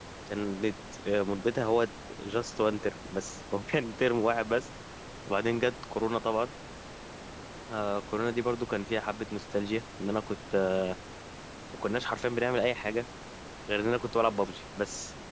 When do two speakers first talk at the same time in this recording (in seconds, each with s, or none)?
none